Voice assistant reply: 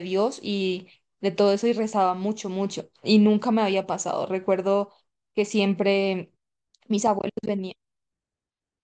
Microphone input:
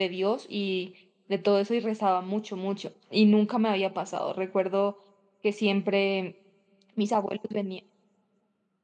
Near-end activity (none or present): none